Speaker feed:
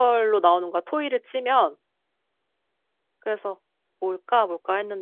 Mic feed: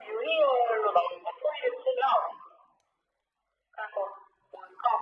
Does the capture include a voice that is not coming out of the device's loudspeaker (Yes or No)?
No